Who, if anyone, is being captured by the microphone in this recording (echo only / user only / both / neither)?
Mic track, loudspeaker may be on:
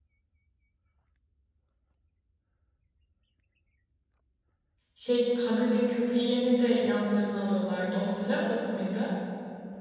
user only